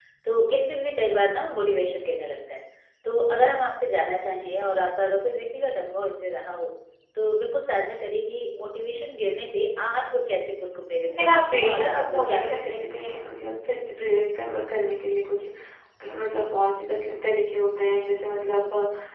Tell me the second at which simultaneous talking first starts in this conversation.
11.1 s

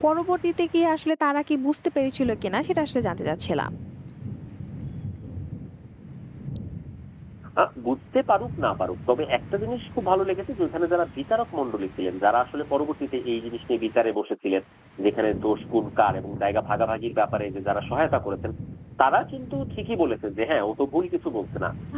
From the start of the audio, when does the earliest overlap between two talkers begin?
none

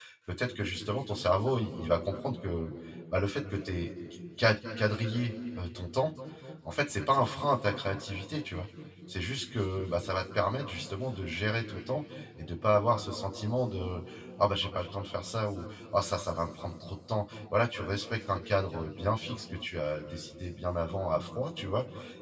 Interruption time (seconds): none

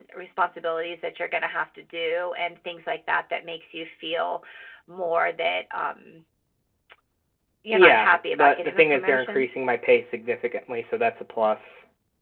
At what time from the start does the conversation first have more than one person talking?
7.7 s

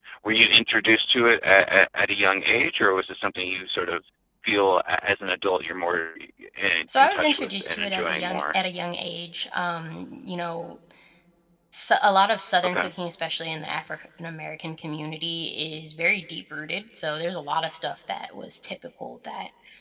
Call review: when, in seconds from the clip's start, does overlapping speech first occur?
7.0 s

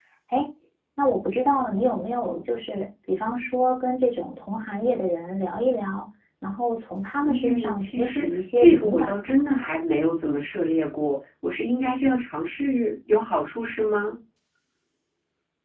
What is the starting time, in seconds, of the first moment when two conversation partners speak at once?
7.2 s

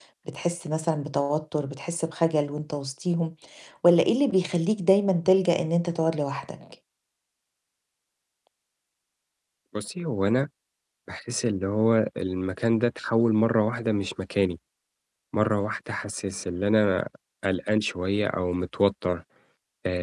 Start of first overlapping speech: none

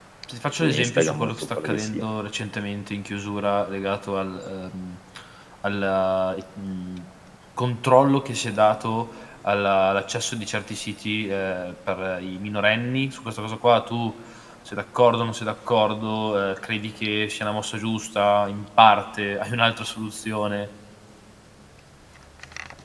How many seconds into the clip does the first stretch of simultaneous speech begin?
0.6 s

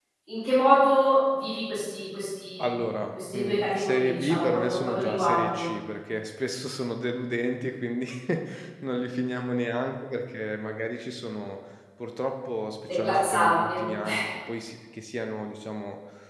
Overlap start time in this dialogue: 3.3 s

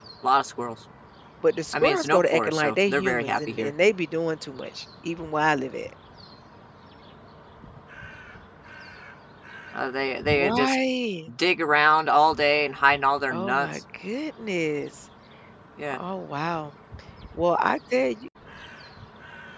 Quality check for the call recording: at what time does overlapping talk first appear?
1.7 s

